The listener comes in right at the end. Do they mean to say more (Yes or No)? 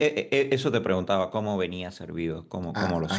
Yes